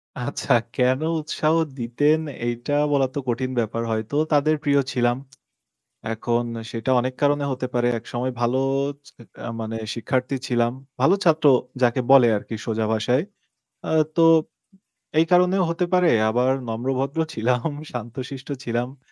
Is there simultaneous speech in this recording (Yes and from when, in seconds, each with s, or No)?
No